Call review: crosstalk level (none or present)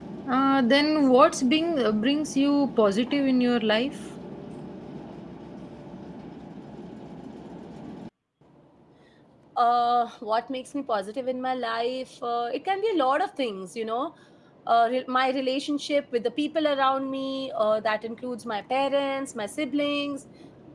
none